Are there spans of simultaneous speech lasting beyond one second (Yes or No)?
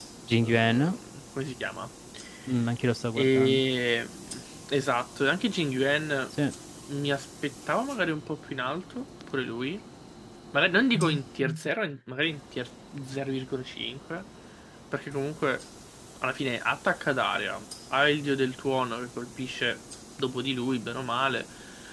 No